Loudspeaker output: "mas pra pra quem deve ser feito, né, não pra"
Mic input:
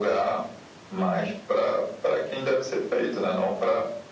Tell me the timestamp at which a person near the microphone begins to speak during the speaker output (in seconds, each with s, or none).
0.9 s